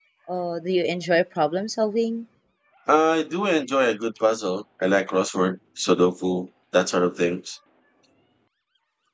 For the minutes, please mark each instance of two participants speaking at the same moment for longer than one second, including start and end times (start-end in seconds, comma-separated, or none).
none